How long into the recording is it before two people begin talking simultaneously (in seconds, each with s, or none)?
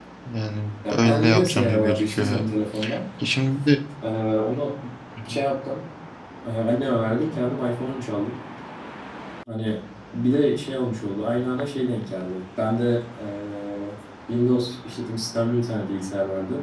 0.9 s